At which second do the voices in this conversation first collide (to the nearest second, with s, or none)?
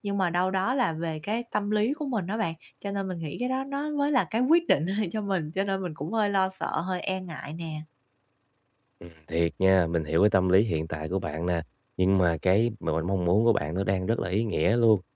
none